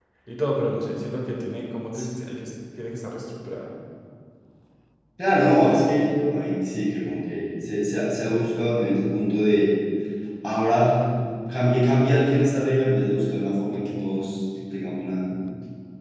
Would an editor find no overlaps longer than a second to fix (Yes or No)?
Yes